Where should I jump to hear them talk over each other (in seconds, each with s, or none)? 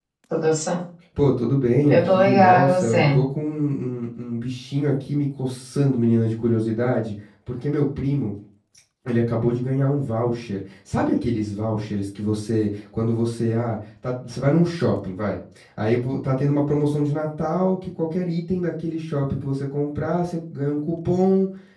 1.9 s